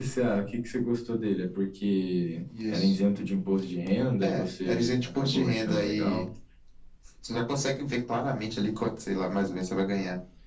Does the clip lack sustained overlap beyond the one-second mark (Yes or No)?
No